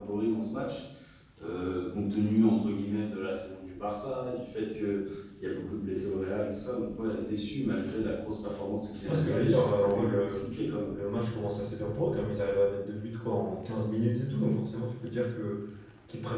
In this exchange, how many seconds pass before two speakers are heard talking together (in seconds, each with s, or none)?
9.1 s